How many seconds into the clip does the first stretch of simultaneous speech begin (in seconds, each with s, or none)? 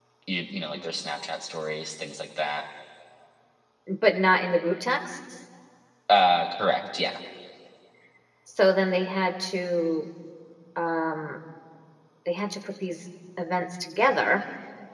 none